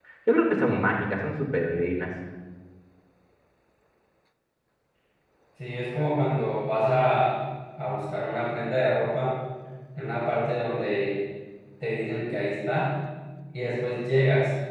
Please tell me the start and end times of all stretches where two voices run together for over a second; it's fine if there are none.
none

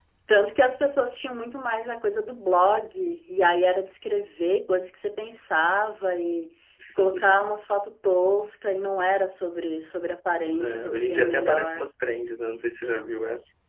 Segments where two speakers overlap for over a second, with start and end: 10.6-11.8

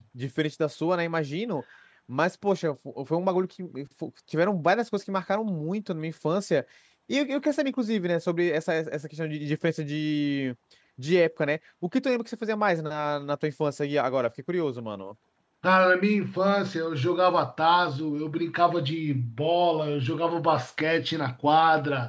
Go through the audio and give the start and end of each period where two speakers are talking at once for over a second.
none

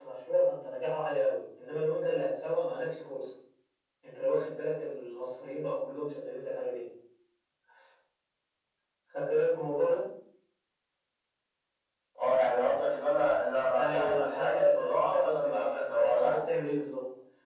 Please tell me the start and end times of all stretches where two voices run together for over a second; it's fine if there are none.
13.7-16.4

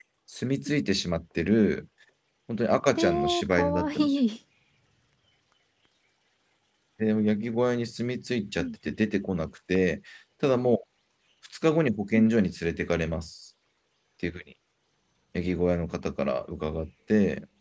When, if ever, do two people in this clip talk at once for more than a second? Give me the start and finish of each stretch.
3.0-4.2

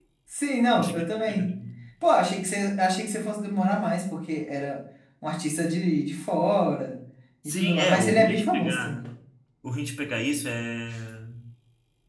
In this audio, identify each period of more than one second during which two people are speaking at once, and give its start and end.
7.5-9.0

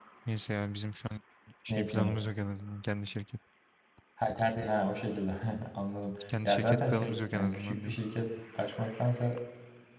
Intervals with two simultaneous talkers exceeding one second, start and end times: 6.4-8.0

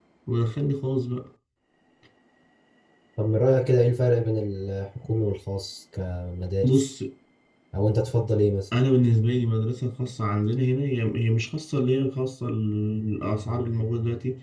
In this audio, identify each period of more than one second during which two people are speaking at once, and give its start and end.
none

